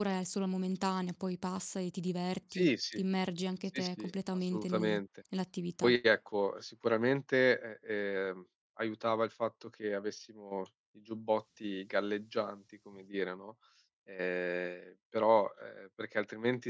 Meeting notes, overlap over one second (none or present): present